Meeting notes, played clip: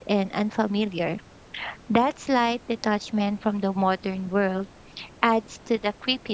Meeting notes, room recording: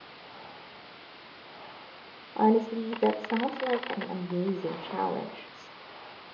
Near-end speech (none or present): present